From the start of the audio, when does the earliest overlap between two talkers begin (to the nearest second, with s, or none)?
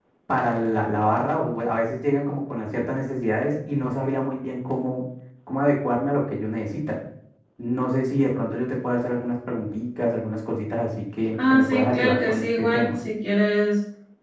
11 s